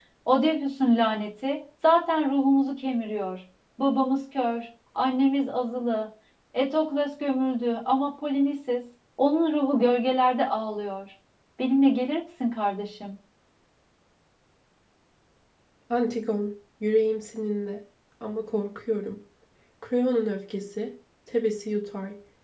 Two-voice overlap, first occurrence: none

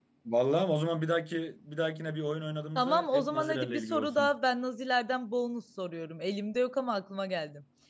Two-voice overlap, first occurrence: 2.8 s

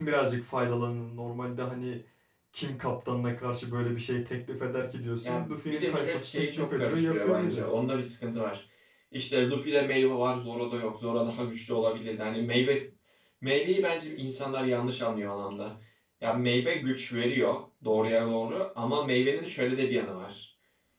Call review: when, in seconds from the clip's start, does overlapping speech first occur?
5.2 s

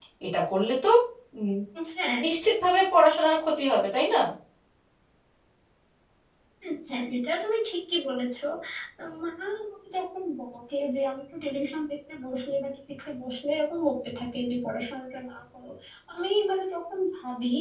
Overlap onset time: none

